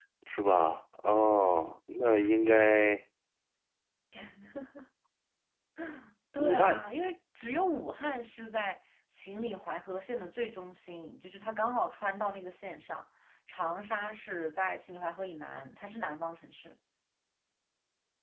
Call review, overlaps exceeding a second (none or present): none